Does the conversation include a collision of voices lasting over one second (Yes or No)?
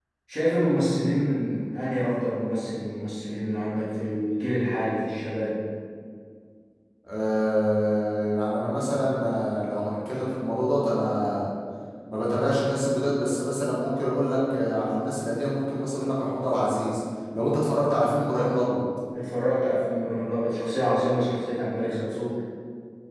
No